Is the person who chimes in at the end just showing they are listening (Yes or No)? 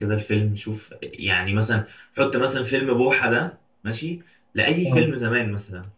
Yes